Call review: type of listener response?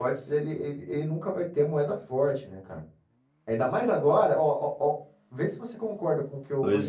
listening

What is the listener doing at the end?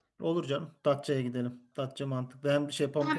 taking over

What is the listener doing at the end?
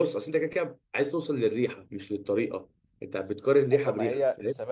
taking over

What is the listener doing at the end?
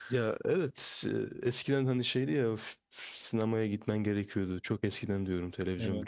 listening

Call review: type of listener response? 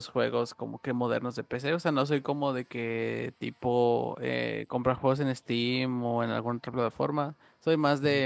listening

